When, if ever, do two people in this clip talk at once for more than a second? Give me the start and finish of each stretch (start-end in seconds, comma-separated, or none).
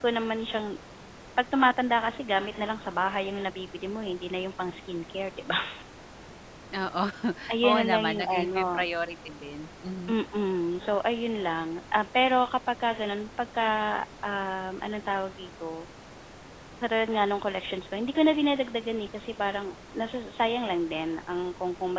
7.6-8.9